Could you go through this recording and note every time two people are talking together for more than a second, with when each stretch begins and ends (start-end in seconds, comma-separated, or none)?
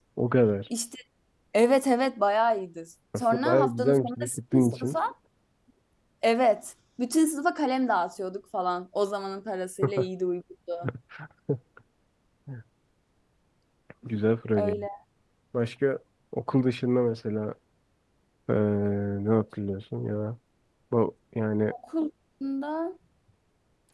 3.2-5.0